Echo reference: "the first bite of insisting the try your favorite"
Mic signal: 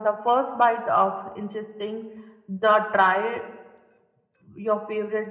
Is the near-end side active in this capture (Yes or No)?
No